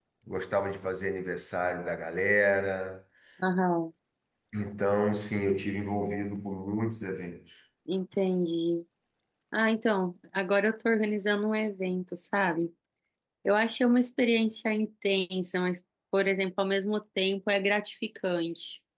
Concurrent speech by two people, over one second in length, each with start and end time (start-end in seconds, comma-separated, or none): none